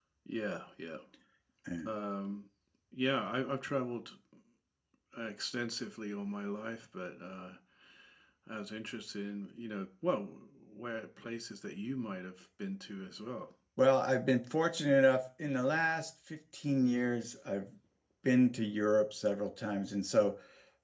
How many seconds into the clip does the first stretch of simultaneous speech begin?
none

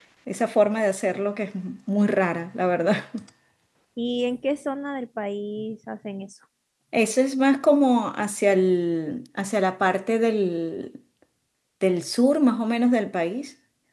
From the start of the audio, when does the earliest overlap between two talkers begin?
none

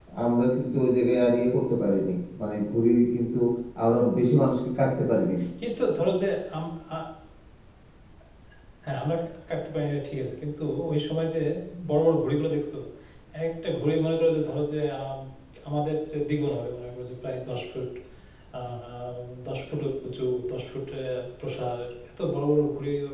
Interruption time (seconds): none

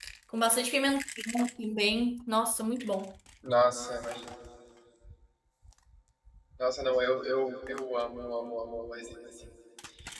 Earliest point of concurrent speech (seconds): none

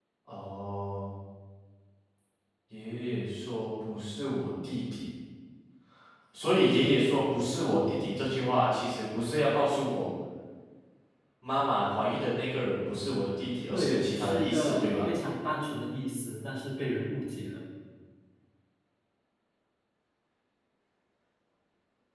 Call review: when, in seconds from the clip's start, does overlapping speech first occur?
14 s

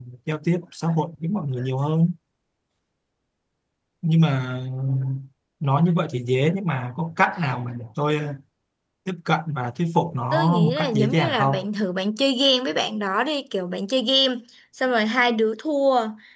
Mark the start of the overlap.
10 s

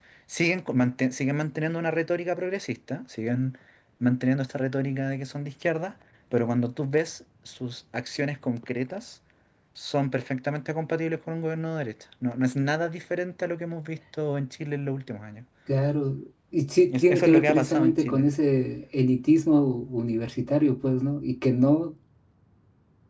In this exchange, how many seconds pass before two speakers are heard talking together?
17 s

